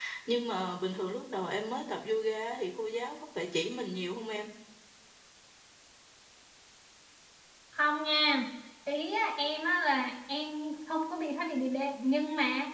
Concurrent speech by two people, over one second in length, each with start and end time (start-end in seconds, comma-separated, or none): none